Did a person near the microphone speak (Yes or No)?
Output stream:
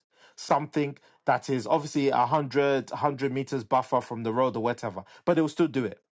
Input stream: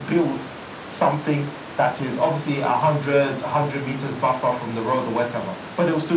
No